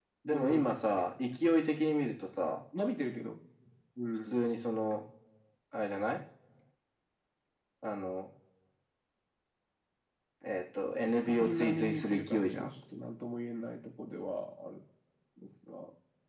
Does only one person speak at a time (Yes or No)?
No